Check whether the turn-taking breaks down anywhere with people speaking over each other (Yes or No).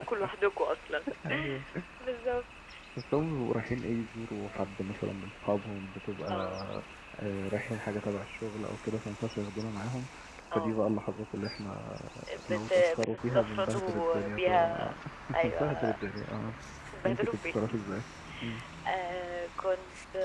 Yes